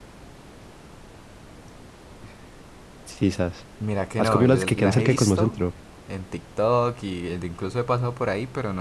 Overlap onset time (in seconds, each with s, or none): 4.2 s